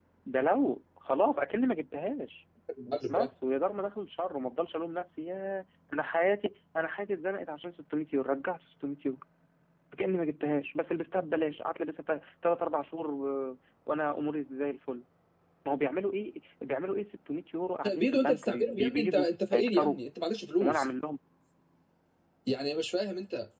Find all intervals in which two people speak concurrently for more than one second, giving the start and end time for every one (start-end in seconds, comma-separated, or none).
17.9-20.0